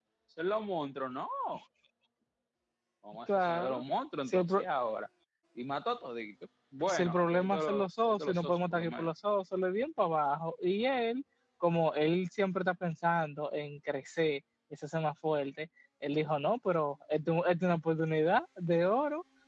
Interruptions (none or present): present